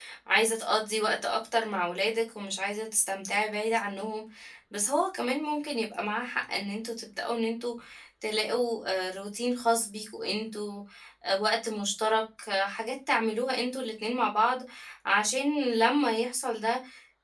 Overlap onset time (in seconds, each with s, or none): none